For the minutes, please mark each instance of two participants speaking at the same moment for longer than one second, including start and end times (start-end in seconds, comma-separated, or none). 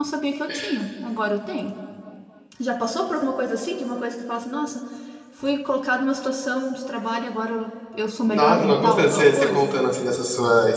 8.3-9.7